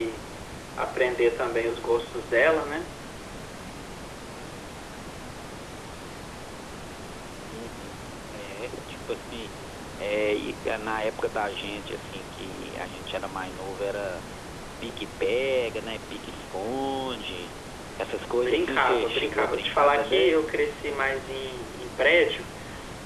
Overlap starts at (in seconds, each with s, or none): 18.2 s